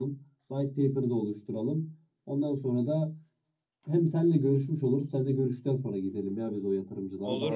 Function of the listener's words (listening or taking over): taking over